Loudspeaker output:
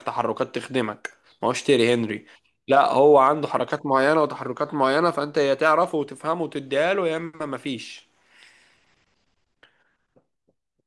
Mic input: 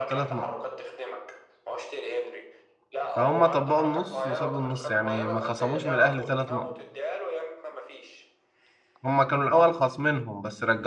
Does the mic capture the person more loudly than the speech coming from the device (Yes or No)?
Yes